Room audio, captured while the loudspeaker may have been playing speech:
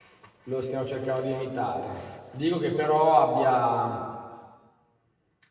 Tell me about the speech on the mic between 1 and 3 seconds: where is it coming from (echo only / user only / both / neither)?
user only